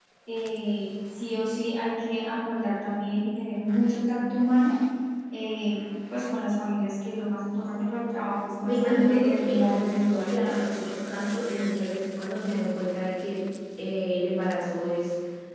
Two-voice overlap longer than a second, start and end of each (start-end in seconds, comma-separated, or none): 8.6-10.6